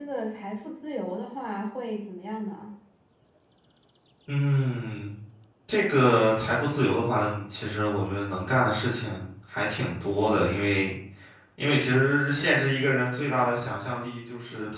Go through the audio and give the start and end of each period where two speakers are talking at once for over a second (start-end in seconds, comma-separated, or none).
none